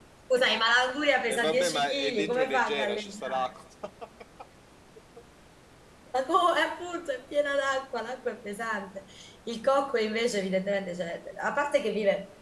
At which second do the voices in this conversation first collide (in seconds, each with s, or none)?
1.3 s